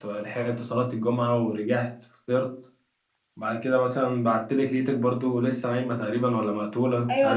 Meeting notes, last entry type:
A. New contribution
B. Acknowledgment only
A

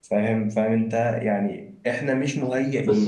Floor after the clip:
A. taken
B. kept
A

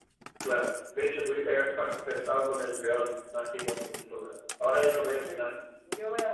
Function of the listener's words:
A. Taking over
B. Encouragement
A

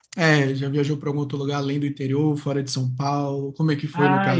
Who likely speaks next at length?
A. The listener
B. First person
A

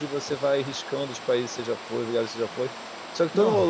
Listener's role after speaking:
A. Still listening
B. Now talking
A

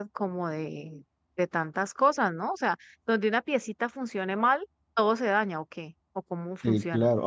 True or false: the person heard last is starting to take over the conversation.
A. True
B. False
A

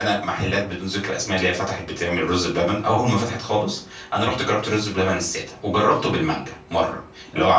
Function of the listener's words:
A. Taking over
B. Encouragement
B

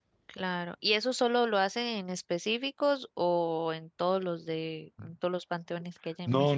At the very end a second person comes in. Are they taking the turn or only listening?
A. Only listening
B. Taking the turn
B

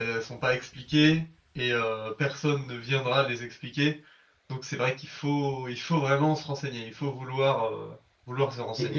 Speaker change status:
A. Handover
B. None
A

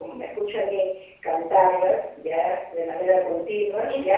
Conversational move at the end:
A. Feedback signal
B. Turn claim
B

